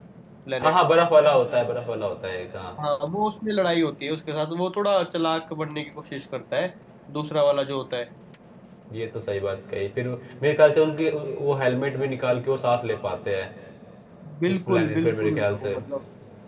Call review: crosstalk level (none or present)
present